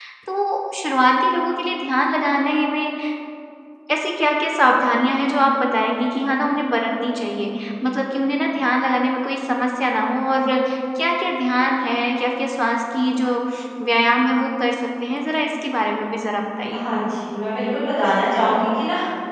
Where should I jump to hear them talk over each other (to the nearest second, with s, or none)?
none